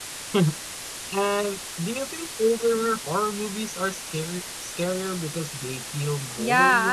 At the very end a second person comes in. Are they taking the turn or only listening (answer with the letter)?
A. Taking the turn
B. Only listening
A